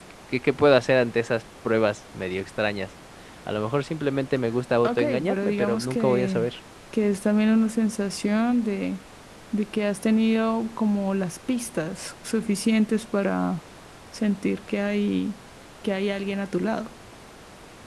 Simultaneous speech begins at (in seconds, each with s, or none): 4.8 s